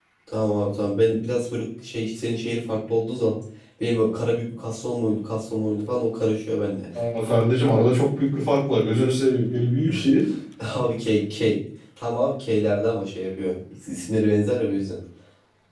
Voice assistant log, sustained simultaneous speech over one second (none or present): none